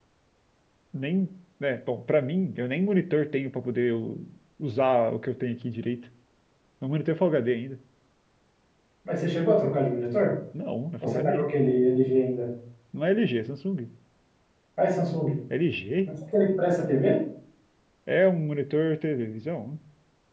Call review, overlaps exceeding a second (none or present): none